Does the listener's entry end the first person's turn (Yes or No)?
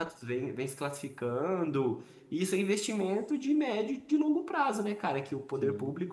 No